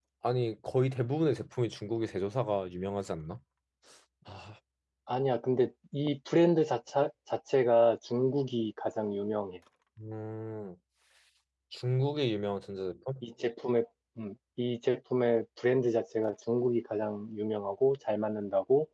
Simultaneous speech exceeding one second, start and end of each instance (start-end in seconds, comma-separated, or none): none